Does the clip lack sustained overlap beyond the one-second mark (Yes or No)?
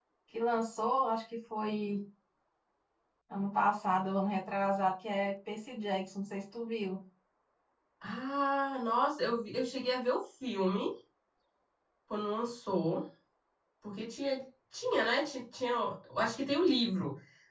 Yes